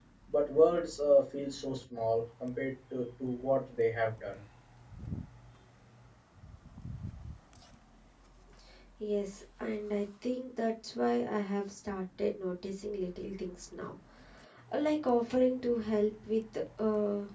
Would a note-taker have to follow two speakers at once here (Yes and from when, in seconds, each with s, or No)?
No